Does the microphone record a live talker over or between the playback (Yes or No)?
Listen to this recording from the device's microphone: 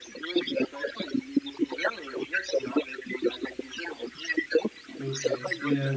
Yes